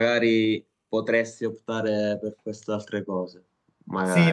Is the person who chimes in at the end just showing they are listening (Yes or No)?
No